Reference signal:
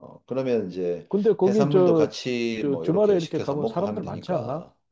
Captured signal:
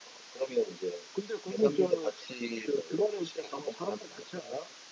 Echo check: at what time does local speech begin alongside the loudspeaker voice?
none

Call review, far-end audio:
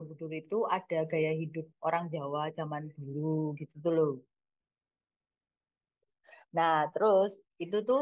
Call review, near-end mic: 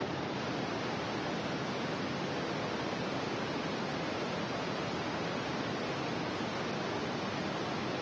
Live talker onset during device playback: none

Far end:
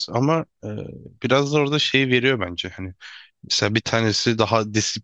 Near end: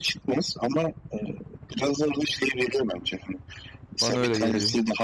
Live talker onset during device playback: 4.0 s

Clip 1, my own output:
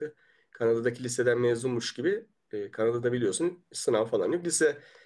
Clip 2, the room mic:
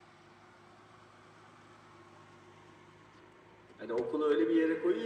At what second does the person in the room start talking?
3.8 s

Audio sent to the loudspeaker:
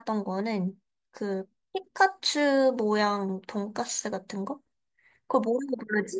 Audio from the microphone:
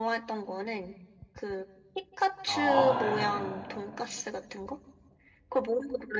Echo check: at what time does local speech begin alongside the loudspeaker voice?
2.4 s

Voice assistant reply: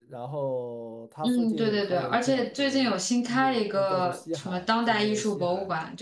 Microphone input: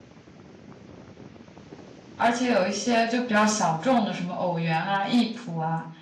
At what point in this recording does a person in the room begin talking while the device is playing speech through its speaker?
2.2 s

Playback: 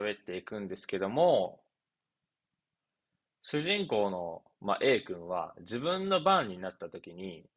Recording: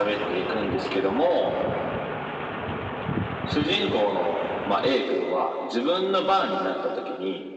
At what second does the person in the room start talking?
none

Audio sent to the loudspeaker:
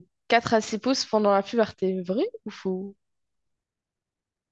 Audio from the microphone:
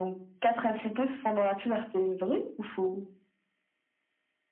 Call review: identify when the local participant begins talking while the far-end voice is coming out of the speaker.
none

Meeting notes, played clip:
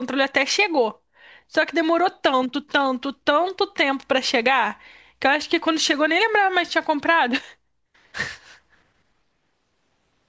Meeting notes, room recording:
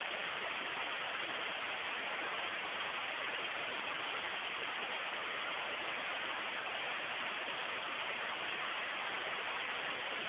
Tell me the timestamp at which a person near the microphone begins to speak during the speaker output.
none

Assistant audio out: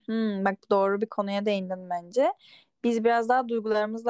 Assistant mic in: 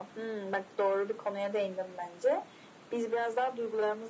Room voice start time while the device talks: none

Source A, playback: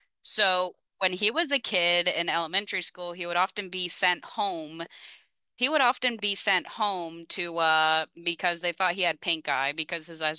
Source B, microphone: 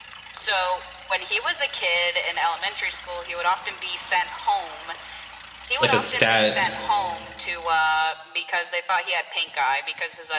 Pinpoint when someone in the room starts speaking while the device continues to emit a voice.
5.8 s

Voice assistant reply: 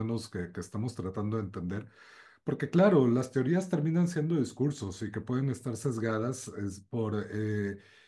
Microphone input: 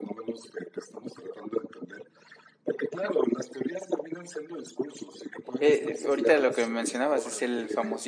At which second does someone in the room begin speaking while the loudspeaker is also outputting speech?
5.6 s

